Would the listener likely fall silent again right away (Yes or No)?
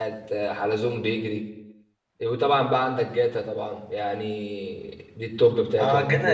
No